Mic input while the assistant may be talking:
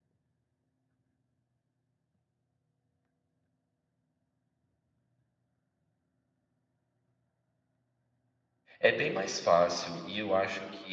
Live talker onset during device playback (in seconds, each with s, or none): 8.8 s